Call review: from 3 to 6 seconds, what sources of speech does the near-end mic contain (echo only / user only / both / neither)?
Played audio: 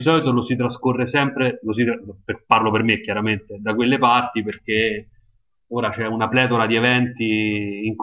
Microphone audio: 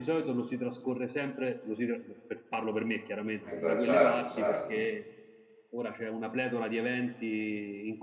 both